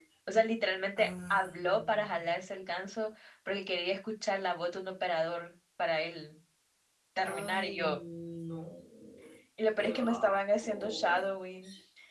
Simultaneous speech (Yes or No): Yes